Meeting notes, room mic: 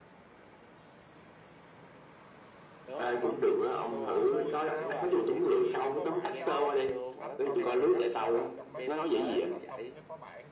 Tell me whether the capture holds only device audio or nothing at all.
No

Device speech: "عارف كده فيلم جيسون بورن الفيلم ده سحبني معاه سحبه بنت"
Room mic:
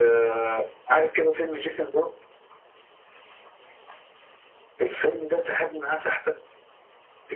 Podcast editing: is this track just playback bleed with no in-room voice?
Yes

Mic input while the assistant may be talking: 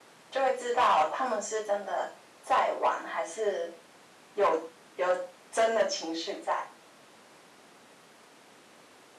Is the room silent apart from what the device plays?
Yes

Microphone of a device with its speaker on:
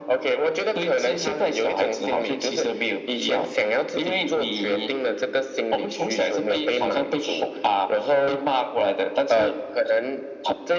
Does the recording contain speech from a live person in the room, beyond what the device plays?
No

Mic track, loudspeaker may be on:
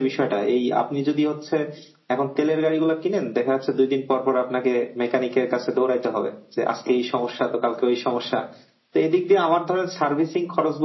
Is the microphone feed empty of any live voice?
Yes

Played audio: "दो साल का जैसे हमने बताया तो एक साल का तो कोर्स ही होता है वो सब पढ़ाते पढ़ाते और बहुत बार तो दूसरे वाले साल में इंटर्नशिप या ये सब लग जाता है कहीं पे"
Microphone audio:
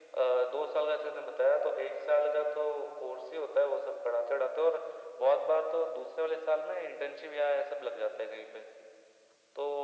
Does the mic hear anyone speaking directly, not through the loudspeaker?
No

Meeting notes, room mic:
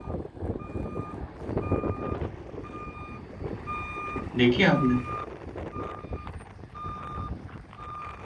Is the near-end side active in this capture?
Yes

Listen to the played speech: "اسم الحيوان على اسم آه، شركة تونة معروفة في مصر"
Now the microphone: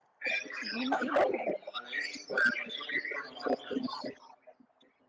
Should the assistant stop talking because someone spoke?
Yes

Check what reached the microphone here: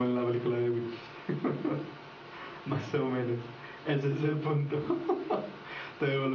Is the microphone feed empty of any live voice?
Yes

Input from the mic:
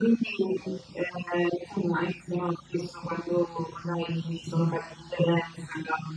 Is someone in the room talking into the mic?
No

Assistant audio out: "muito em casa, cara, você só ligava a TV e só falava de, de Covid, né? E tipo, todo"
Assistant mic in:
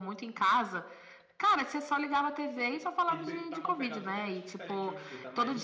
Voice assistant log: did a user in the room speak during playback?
Yes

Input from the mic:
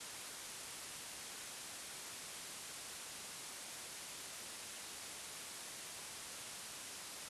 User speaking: No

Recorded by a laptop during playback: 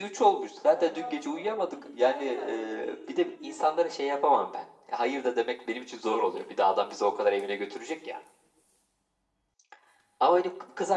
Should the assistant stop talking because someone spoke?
Yes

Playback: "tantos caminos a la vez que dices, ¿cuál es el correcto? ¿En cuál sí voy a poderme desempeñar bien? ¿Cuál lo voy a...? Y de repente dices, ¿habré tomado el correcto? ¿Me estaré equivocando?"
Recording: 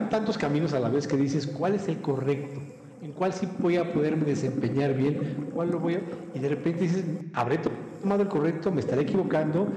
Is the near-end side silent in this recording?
Yes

